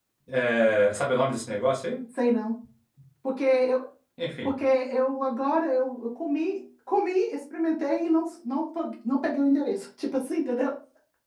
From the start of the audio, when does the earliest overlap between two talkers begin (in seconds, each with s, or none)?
none